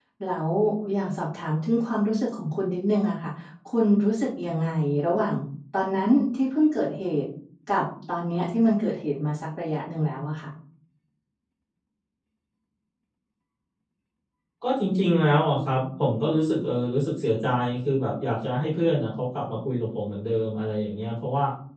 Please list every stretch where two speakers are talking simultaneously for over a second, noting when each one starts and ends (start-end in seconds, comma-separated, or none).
none